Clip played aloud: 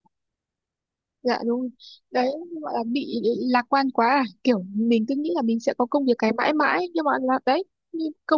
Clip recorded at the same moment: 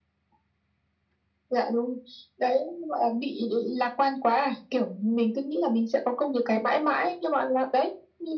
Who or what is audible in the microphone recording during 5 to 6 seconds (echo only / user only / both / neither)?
echo only